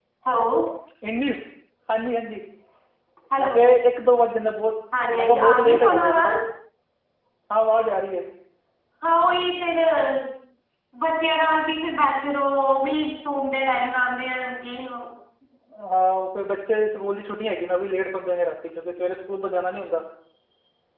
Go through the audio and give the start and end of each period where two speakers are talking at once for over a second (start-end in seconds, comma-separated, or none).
5.1-6.3